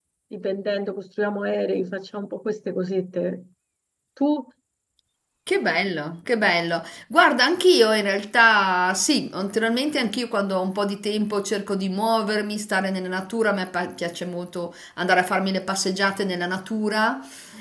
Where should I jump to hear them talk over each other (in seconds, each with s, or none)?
none